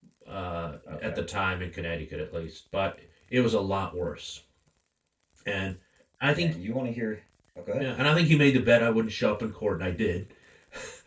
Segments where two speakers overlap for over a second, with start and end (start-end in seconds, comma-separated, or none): none